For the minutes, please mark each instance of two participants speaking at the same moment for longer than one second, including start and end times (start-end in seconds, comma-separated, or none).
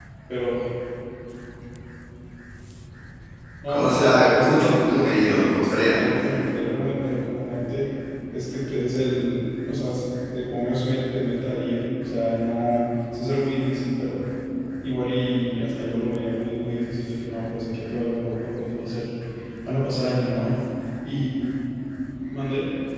3.7-6.0